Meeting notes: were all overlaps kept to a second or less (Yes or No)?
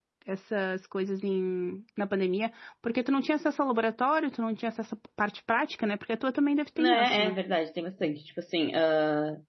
Yes